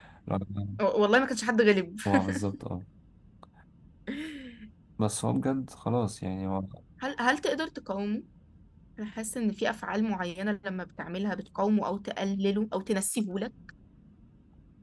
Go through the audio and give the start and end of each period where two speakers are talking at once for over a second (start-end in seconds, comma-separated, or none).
none